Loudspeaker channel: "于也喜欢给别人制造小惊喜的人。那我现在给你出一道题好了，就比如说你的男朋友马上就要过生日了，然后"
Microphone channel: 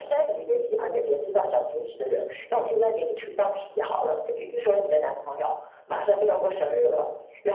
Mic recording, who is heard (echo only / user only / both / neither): echo only